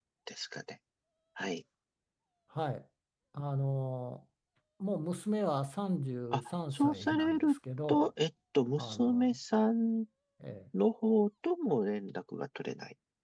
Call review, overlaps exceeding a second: present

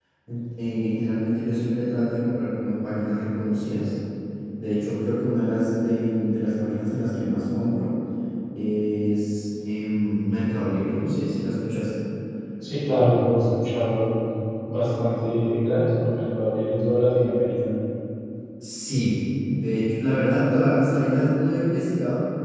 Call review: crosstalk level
none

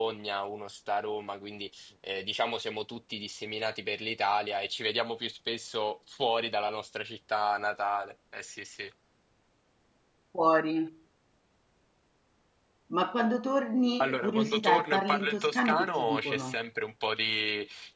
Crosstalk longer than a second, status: present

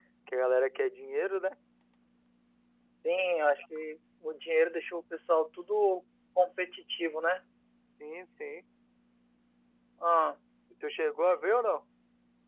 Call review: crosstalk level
none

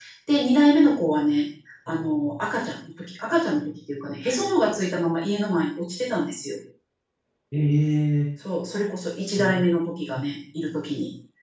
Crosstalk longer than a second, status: none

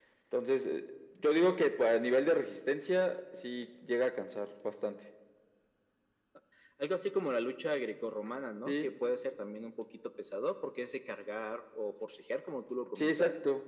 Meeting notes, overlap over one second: none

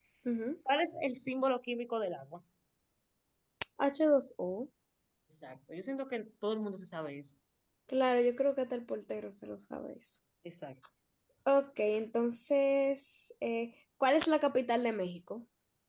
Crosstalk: none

